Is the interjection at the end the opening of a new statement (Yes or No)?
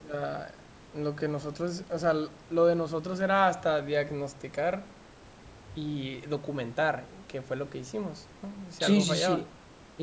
Yes